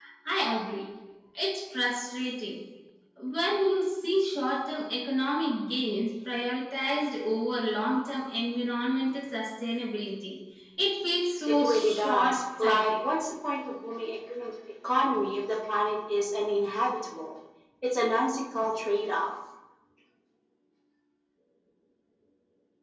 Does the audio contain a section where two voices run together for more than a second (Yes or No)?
Yes